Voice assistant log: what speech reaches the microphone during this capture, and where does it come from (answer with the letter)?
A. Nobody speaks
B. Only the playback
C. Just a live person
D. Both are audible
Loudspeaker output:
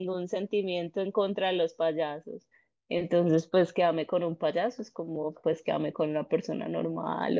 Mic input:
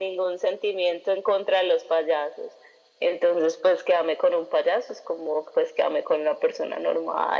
B